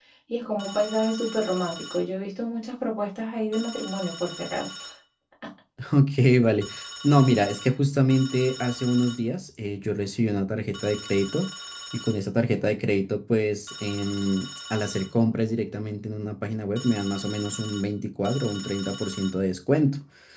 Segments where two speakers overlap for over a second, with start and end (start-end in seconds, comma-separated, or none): none